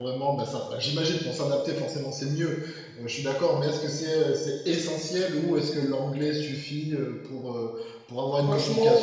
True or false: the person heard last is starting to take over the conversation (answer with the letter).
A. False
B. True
B